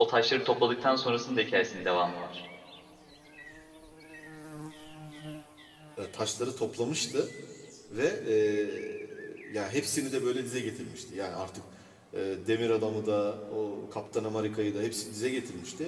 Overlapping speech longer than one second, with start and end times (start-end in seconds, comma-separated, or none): none